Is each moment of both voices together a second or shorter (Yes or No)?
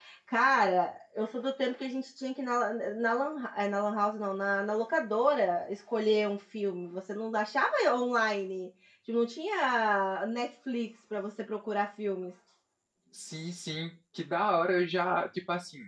Yes